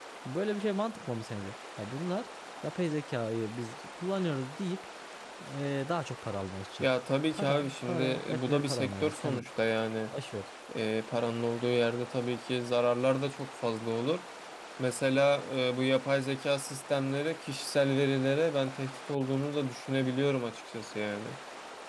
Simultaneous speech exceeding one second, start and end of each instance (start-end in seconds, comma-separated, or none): 7.3-9.4